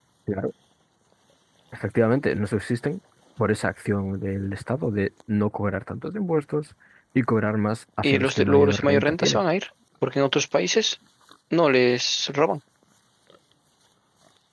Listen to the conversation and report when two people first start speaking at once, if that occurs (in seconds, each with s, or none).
8.0 s